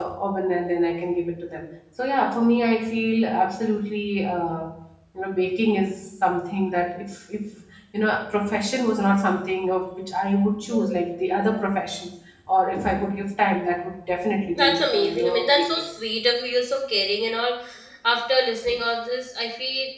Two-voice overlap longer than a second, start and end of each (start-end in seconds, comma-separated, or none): 14.6-15.8